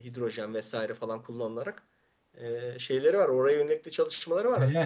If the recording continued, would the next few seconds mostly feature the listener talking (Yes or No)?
Yes